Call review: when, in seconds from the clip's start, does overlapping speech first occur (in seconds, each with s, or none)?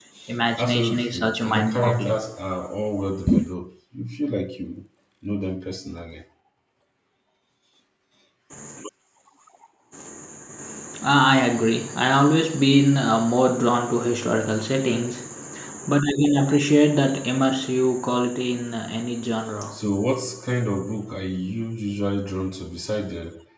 0.6 s